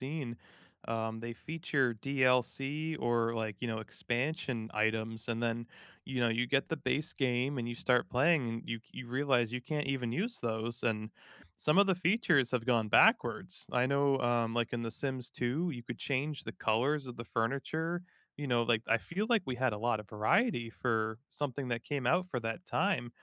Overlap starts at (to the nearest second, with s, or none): none